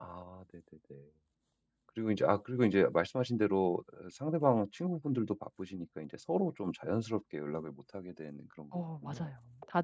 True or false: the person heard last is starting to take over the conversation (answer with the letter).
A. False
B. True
B